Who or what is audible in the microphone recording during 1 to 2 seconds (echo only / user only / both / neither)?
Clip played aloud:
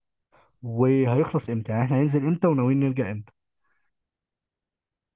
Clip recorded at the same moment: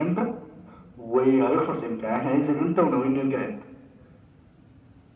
echo only